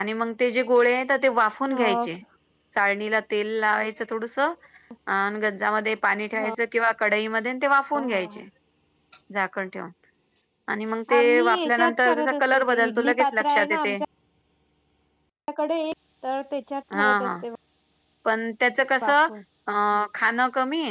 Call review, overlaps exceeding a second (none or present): present